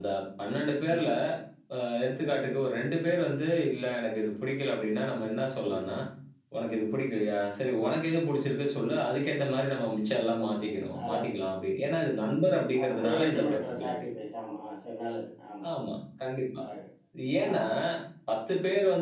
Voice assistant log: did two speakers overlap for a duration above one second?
Yes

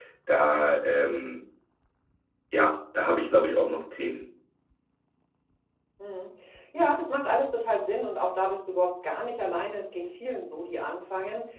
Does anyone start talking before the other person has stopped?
No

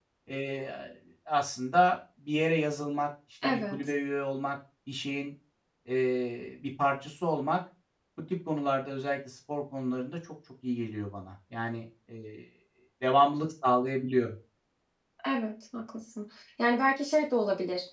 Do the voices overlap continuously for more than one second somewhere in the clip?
No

